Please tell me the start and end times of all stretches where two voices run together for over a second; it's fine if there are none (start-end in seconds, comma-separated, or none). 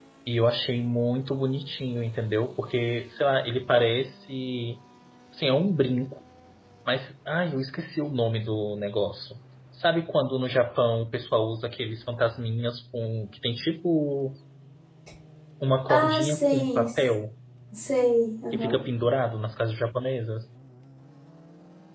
15.9-17.1